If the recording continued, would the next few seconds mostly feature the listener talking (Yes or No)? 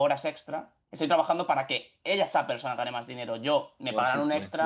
No